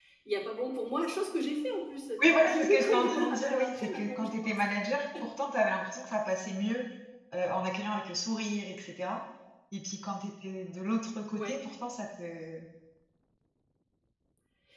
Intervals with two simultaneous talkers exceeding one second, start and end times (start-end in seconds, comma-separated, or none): 2.2-4.6